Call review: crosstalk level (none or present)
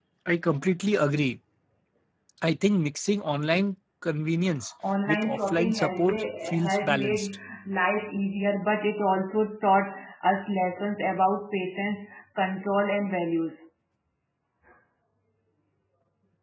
present